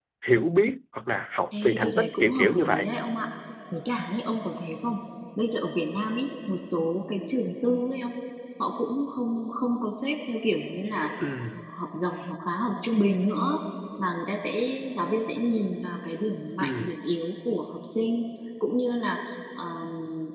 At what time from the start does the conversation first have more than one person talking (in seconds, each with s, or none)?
1.6 s